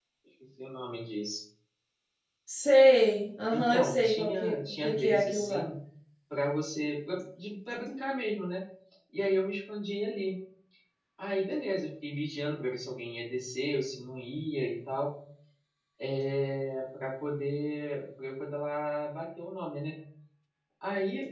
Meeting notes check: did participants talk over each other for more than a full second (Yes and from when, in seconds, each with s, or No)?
Yes, from 3.5 s